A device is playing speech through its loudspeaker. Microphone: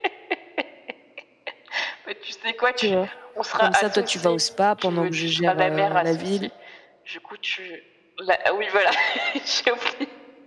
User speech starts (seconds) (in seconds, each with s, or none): 2.8 s